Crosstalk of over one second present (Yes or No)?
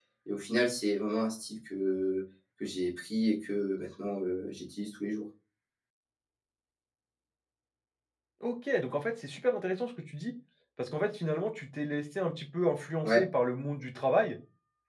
No